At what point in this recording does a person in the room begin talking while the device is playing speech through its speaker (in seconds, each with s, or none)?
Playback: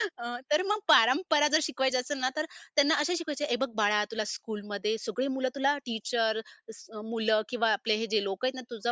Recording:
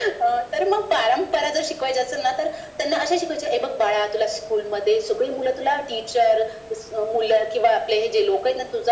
none